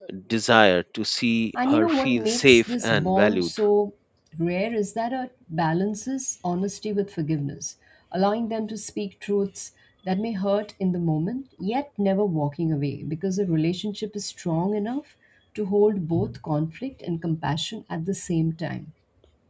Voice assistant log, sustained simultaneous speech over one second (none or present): present